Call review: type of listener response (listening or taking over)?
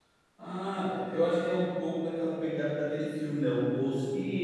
taking over